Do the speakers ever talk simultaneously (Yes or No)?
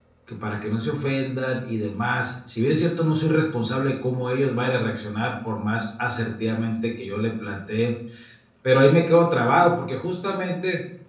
No